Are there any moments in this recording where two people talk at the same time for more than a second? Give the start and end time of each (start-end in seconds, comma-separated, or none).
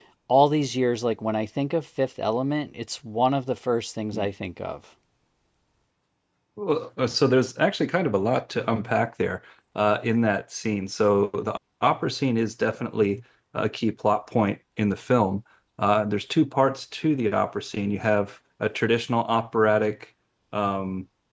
none